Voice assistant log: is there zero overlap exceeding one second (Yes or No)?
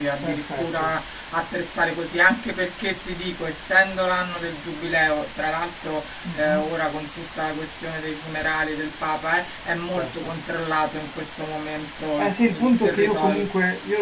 No